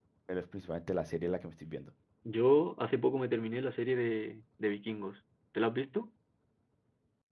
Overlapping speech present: No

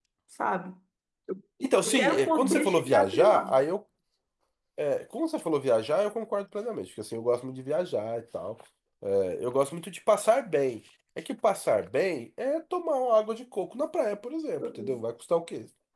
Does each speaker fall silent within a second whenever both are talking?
No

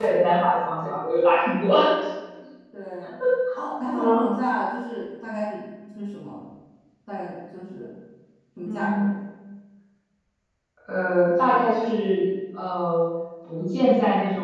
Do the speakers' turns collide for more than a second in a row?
No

